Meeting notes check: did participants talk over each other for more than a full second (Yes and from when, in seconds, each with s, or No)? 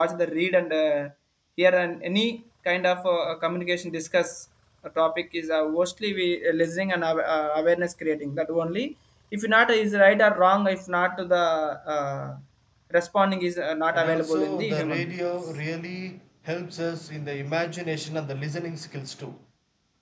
Yes, from 13.9 s